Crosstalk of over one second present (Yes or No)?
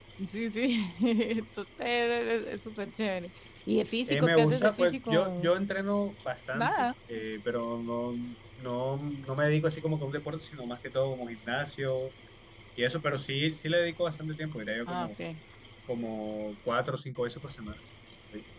Yes